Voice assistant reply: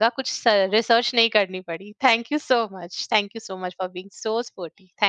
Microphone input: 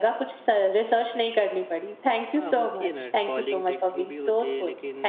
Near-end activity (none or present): present